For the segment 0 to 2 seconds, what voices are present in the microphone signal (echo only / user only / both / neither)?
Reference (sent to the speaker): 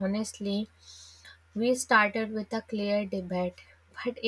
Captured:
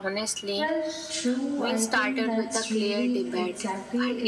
both